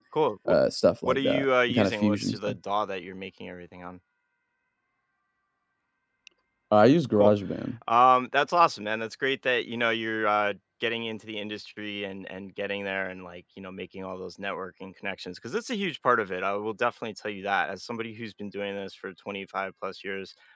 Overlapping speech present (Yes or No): Yes